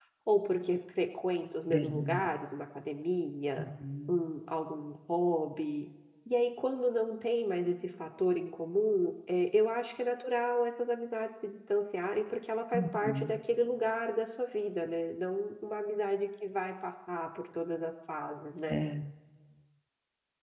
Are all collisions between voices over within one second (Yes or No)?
Yes